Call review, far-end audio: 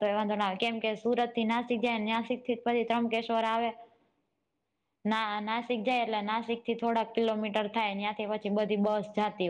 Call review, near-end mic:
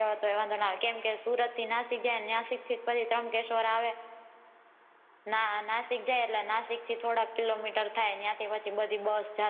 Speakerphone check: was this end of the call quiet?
Yes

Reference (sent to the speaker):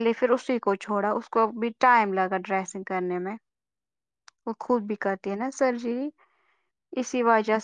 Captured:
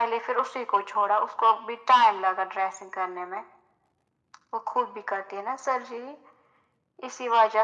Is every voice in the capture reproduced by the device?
Yes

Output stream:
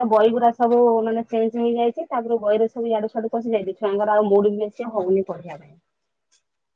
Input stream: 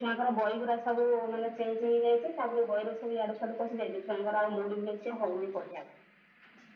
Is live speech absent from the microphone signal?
Yes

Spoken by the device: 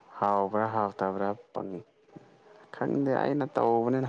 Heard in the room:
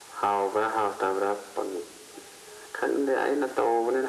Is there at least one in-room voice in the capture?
No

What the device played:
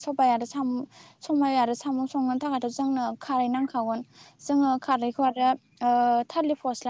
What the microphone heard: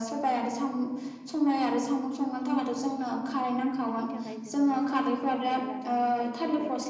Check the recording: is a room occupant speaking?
Yes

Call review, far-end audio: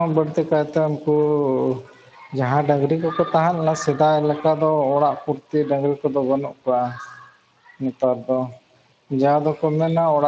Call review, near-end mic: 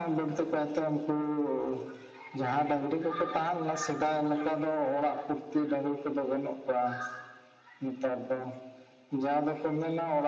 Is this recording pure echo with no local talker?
Yes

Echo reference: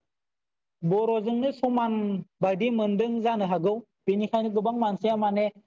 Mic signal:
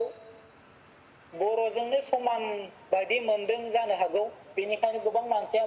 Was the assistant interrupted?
No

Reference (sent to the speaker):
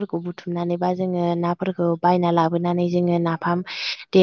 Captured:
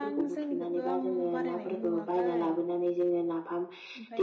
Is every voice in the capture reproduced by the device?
No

